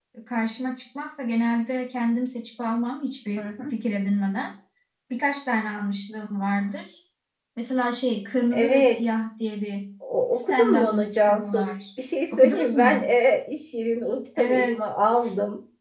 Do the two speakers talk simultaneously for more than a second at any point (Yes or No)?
Yes